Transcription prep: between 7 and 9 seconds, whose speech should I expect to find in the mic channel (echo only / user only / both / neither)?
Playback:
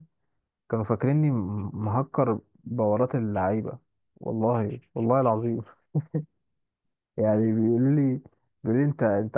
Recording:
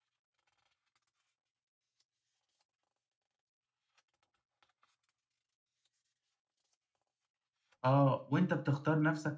user only